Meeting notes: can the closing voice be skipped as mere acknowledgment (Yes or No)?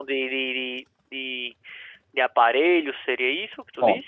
No